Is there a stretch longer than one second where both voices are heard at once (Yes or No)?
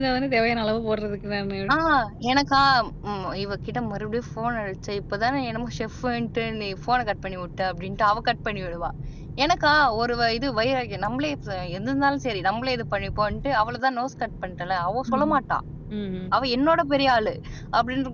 No